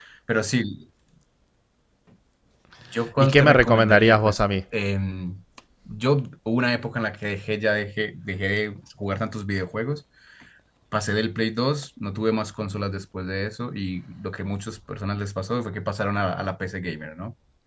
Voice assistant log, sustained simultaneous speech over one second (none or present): present